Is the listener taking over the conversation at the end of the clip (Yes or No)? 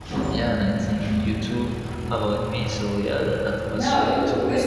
Yes